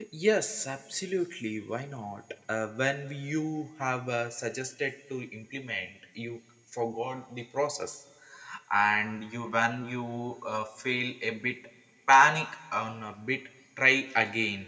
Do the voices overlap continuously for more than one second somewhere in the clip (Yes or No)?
No